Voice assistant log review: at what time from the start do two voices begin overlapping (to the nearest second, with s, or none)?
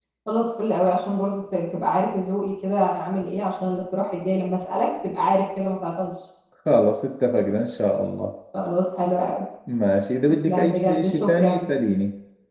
10 s